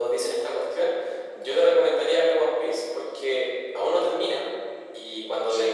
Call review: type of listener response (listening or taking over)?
listening